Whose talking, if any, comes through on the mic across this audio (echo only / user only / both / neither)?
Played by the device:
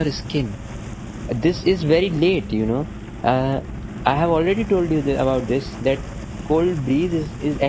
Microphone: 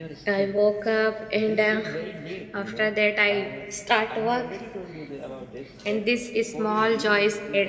both